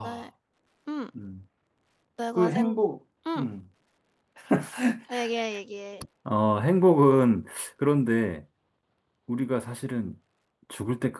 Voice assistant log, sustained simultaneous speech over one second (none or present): none